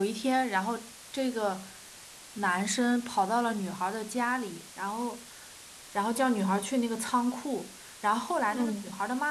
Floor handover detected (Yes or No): No